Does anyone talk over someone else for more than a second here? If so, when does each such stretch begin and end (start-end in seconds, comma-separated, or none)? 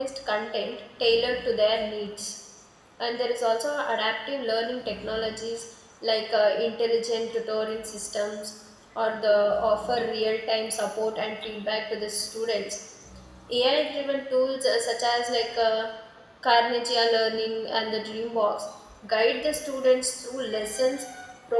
none